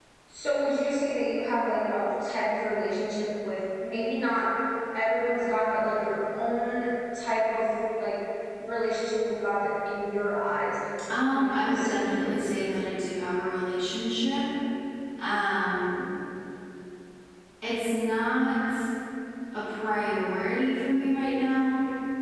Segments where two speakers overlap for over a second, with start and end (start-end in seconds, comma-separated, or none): 11.2-12.8